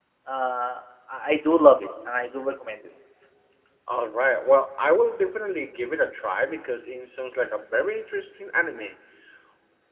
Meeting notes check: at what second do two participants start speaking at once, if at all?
none

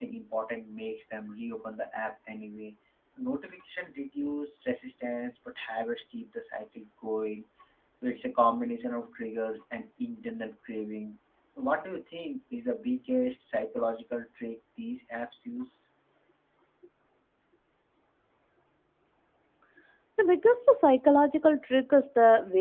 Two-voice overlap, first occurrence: none

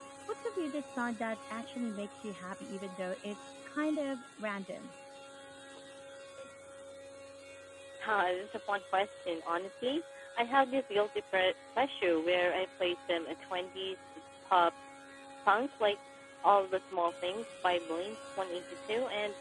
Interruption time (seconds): none

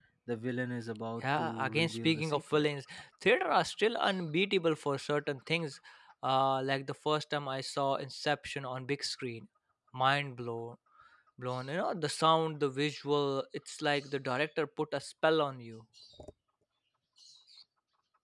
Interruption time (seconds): 1 s

